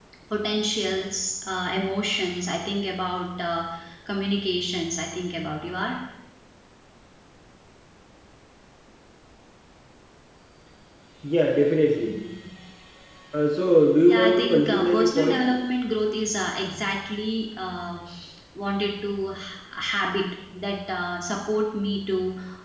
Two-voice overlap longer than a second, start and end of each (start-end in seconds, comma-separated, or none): 14.1-15.5